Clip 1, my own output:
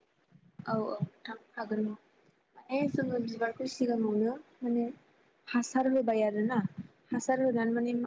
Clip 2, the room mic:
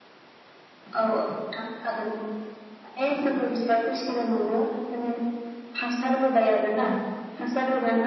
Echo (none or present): present